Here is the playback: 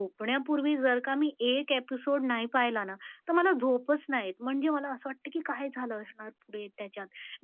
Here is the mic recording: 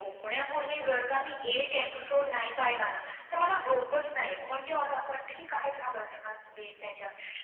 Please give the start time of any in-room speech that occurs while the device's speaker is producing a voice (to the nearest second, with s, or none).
none